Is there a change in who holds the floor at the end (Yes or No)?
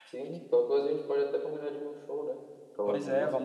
Yes